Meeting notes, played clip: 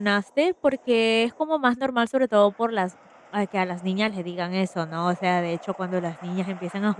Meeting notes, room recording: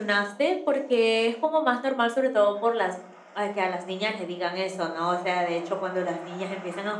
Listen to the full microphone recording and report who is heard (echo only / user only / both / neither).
echo only